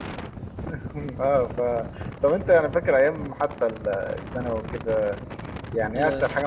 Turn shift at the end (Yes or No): No